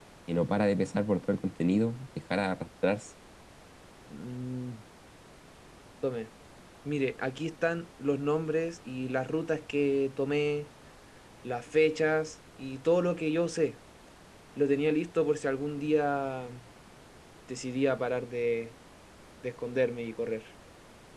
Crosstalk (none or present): none